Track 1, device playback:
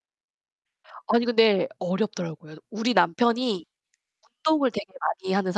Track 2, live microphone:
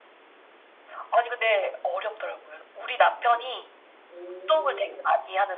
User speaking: Yes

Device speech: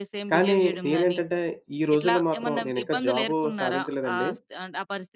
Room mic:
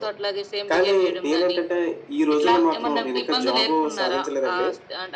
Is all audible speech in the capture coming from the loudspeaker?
Yes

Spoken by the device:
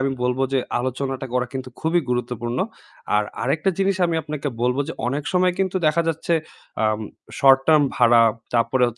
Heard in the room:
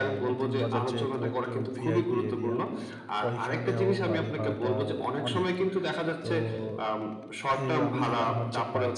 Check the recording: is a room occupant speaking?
Yes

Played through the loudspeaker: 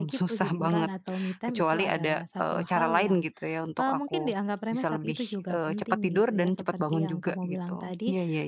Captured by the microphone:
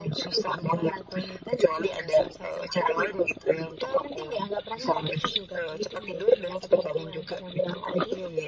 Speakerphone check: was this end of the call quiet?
Yes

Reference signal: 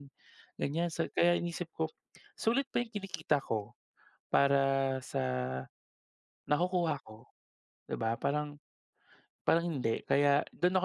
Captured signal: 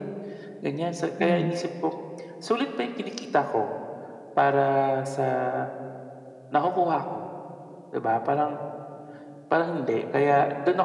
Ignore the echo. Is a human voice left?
Yes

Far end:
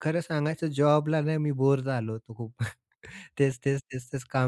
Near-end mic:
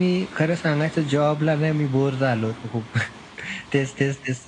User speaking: No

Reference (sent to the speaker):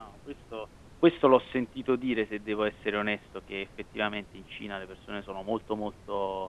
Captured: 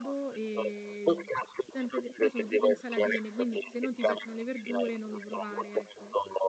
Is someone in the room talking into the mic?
Yes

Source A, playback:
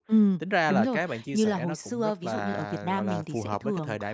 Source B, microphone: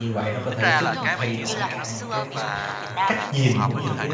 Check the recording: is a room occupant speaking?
Yes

